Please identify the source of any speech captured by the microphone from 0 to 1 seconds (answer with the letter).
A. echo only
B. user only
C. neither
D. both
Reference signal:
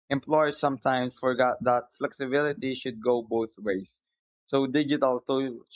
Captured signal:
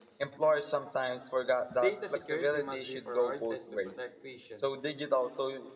A